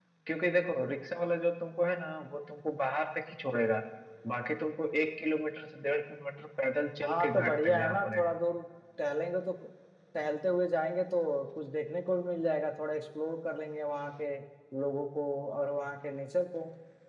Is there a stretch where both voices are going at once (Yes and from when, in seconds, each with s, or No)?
Yes, from 7.0 s